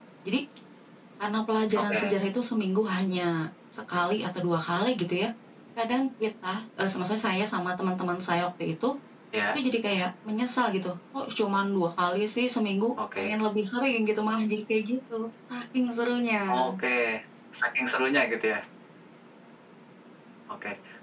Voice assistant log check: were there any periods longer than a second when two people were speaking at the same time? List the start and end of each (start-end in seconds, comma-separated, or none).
none